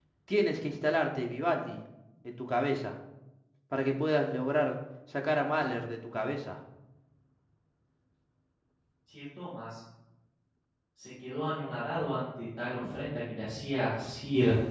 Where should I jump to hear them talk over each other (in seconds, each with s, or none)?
none